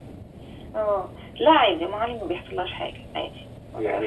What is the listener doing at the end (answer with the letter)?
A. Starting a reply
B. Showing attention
A